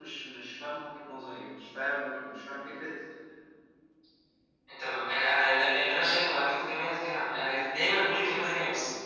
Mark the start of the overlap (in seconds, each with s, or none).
none